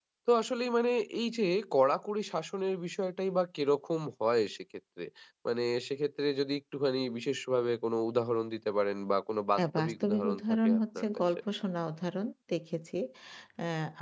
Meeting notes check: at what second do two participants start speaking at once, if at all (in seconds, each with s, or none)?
9.6 s